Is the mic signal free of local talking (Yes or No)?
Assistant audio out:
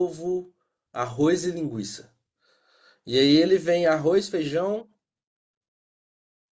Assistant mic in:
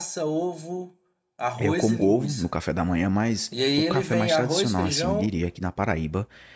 No